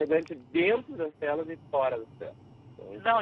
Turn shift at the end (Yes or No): Yes